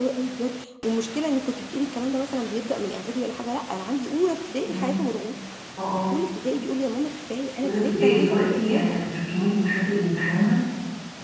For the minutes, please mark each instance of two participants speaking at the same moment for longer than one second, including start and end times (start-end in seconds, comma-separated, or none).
7.6-9.0